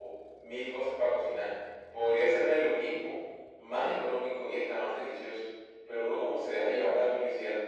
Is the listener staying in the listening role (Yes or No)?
Yes